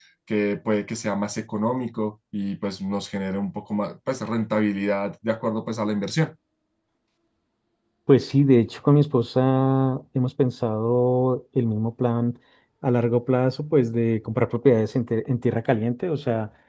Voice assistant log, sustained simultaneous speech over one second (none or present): none